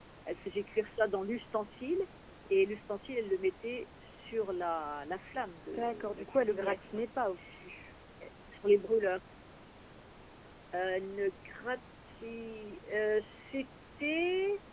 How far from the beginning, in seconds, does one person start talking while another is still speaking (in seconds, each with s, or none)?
5.7 s